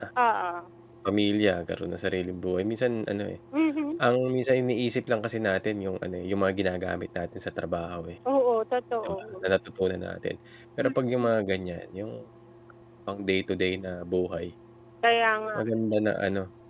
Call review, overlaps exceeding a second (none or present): none